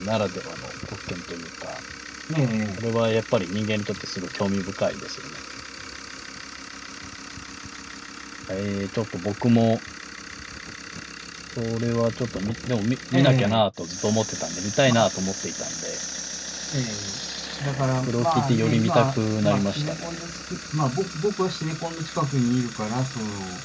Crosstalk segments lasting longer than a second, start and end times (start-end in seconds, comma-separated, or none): 18.1-20.1